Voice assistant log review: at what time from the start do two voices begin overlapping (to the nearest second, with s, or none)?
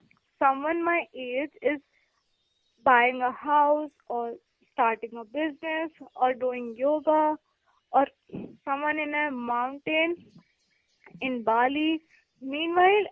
none